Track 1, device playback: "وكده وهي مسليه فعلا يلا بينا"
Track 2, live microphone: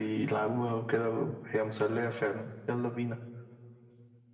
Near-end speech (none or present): none